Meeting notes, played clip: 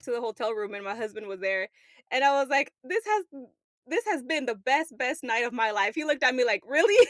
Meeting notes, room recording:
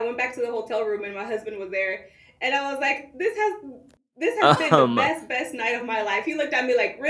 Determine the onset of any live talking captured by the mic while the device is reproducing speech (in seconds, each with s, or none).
4.4 s